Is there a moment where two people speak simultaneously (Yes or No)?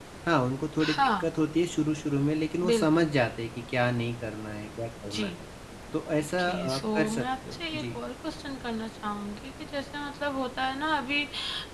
Yes